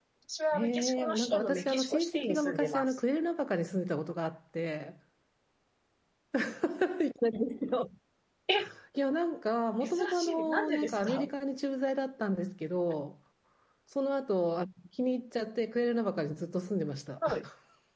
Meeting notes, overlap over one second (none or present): present